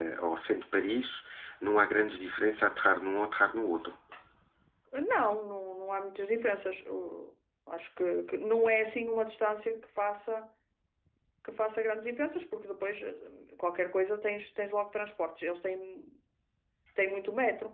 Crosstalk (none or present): none